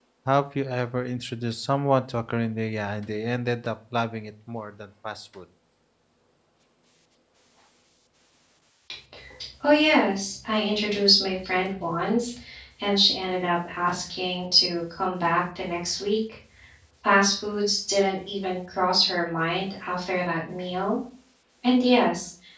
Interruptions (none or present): none